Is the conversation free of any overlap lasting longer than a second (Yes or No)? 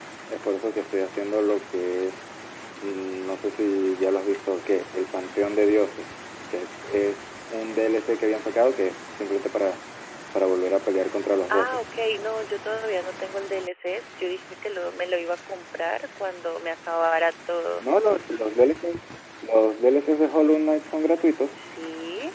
Yes